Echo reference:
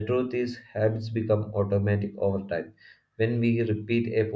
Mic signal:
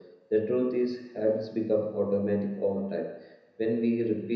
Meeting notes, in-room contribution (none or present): none